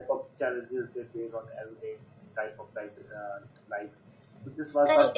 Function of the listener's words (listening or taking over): taking over